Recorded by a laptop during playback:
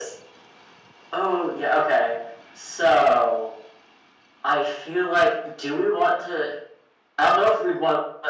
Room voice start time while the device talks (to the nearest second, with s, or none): none